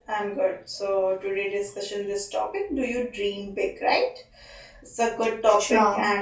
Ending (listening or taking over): listening